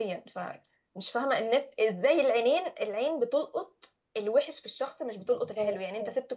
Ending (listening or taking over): listening